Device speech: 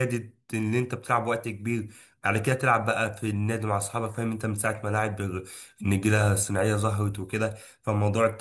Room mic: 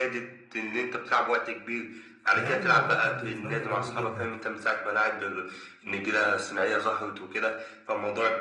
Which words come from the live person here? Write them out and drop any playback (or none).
فيعني الموضوع كان بالنسبه لنا جميل جدا